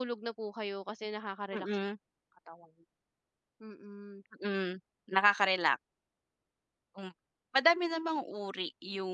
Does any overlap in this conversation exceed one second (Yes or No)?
No